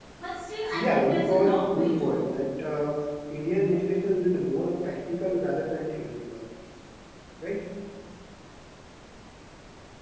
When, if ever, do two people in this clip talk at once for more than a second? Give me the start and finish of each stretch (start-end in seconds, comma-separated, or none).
0.7-2.2